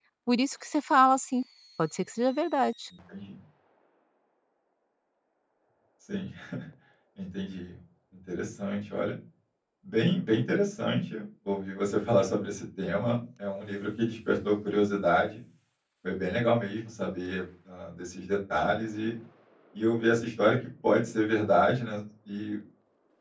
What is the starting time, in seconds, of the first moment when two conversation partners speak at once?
none

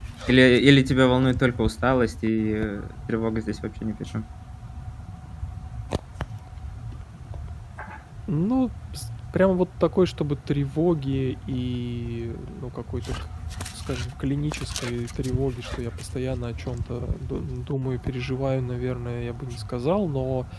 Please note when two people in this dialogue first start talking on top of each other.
none

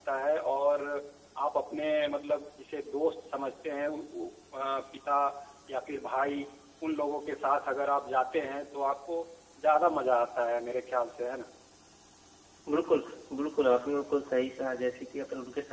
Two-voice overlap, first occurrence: none

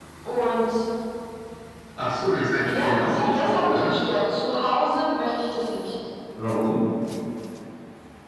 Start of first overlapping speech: 2.7 s

